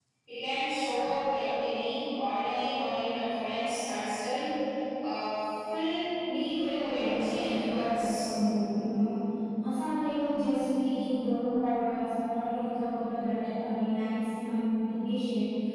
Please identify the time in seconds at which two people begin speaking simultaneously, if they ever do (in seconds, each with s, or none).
6.7 s